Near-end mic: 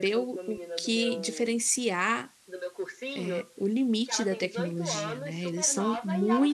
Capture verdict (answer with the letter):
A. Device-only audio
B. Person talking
B